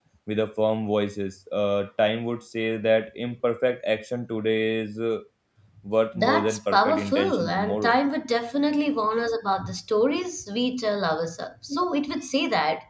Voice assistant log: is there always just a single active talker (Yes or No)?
No